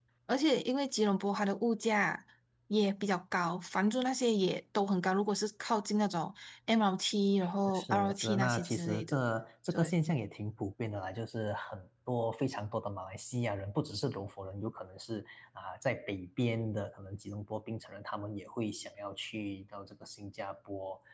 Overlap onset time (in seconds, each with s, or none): 7.7 s